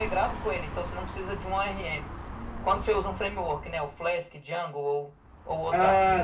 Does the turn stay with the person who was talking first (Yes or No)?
No